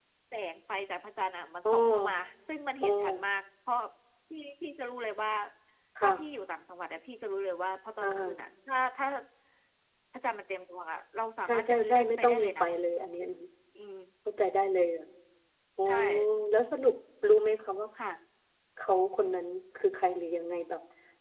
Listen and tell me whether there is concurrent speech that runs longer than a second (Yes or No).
Yes